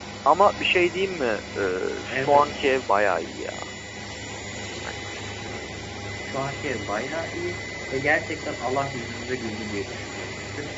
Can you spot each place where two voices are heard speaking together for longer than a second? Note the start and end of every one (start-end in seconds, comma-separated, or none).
none